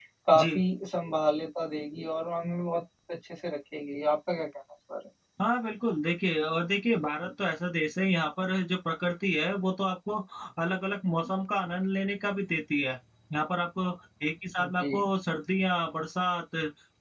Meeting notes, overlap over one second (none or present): none